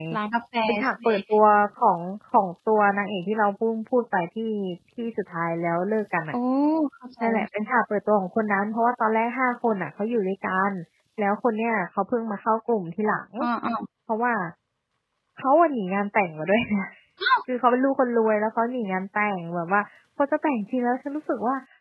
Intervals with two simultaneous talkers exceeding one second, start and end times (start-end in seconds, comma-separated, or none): none